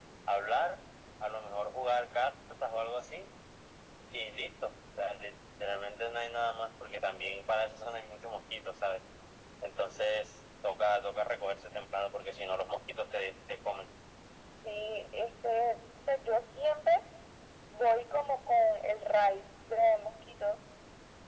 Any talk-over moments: No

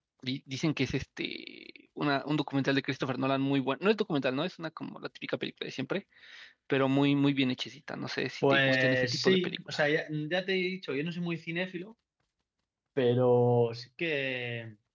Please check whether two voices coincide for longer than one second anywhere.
Yes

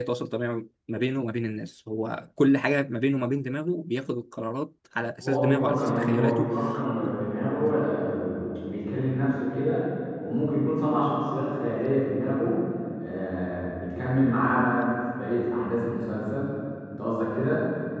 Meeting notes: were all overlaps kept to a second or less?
No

